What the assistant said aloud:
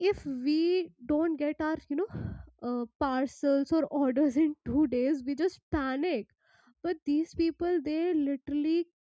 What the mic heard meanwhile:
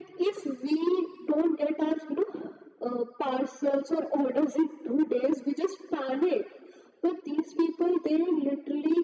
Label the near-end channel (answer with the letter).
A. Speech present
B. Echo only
B